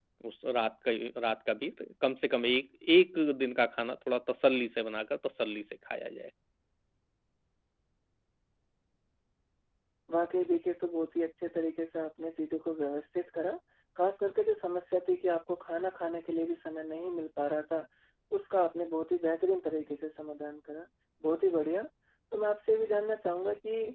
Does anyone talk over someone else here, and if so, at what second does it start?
none

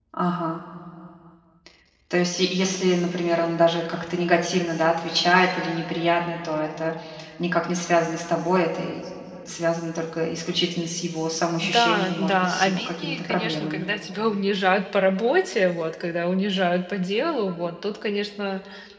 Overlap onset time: 12 s

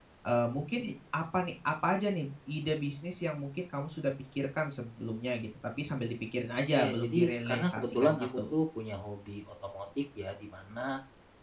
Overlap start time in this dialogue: 7 s

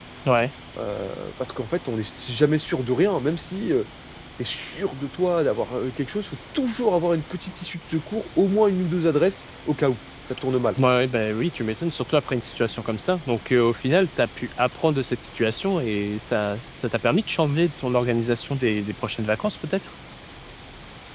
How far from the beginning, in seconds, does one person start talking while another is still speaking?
none

